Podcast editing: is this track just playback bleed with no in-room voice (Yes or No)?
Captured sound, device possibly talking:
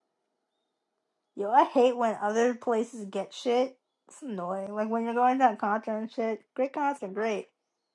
No